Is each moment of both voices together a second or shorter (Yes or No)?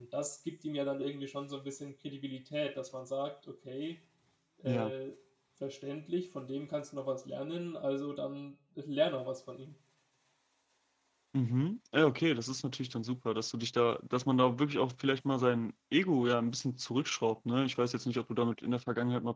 Yes